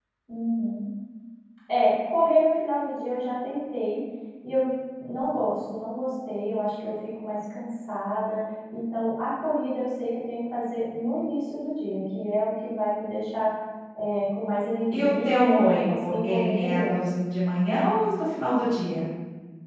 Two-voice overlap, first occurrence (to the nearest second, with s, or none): 15 s